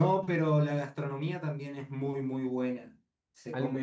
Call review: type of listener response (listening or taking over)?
listening